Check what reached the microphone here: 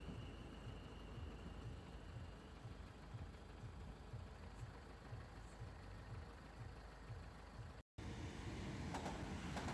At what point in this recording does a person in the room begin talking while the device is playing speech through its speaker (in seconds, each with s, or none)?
none